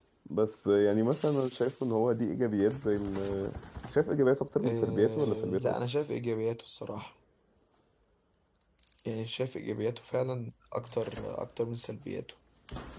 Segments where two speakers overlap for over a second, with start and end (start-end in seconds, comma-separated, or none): 4.6-5.8